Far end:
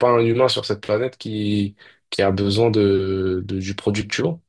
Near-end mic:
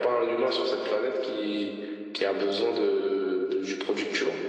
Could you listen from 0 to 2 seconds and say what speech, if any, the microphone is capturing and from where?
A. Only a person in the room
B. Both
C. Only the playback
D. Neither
C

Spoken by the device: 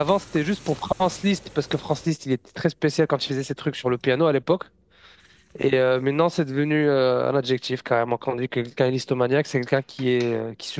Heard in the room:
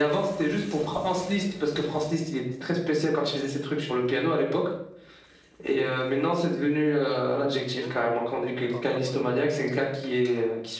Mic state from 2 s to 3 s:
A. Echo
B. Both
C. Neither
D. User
A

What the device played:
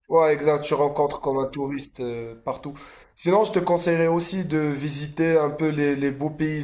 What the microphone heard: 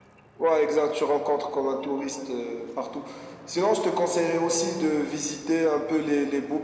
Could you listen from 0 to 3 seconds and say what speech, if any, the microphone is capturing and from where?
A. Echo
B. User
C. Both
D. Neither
A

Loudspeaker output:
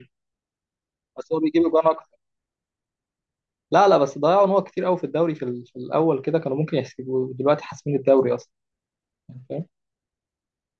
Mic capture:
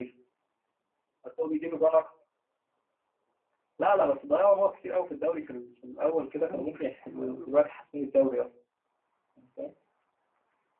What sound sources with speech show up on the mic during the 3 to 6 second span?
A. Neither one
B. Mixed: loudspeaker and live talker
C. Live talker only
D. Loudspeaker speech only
D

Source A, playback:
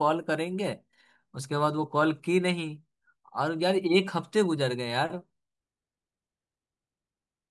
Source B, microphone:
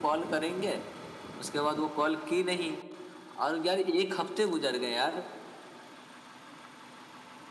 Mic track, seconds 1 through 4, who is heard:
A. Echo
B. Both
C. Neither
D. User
A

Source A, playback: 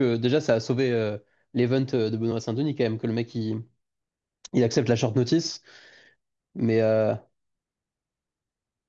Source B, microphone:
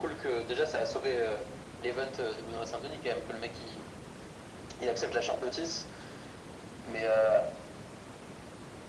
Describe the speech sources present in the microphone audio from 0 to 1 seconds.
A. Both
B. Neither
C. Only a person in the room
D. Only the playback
D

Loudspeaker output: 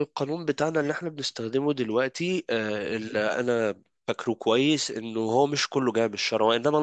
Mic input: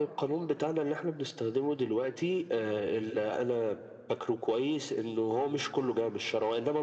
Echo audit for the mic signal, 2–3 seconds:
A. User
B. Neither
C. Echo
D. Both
C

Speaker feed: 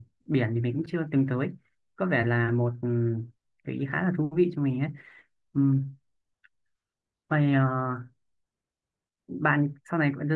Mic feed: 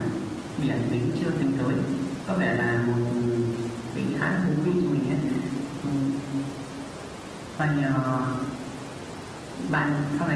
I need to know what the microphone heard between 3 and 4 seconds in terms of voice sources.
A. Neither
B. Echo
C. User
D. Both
B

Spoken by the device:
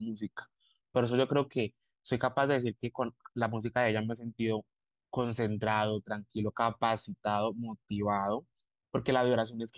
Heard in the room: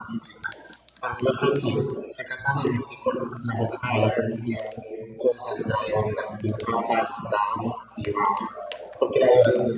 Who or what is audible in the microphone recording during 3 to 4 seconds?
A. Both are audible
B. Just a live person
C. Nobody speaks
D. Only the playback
D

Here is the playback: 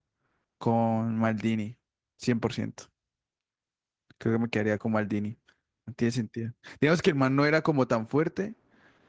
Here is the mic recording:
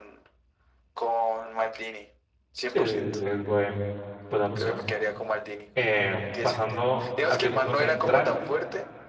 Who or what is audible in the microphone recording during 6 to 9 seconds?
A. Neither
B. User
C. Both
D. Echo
C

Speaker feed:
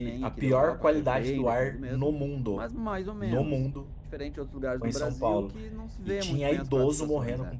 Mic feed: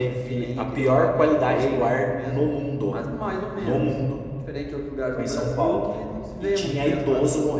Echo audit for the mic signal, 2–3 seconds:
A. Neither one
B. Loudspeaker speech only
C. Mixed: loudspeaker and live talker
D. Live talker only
B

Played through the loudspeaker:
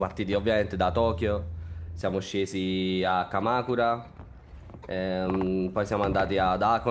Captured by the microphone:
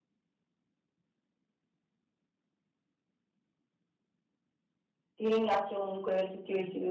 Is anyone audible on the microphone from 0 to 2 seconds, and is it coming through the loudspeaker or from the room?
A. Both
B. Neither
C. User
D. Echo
B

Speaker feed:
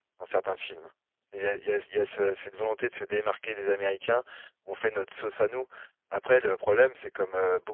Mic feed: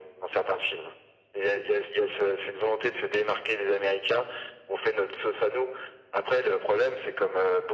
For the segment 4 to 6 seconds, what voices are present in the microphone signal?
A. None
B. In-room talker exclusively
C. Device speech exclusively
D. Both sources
C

